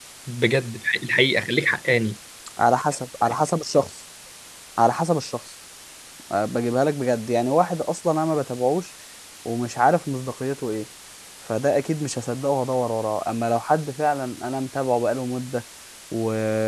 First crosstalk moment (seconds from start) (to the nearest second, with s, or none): none